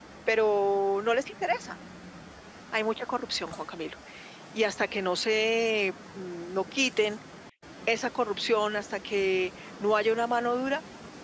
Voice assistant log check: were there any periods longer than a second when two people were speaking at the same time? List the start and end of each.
none

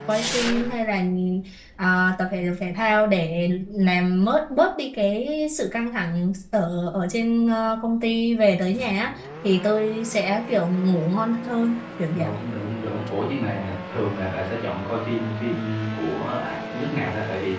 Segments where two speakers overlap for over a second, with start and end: none

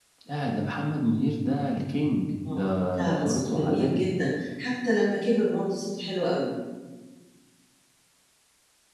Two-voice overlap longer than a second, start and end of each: 2.5-4.1

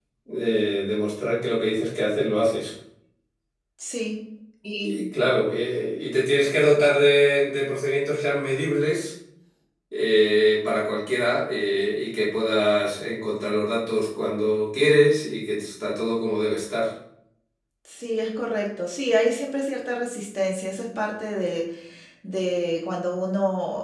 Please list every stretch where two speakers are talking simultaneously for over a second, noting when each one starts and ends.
none

